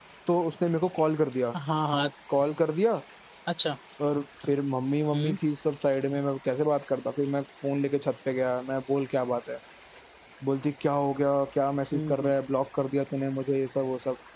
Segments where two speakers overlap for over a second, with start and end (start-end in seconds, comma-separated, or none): none